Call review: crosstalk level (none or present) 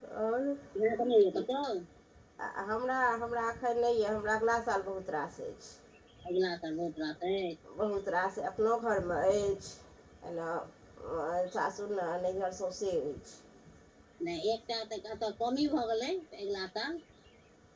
none